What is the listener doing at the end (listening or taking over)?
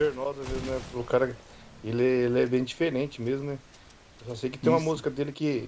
listening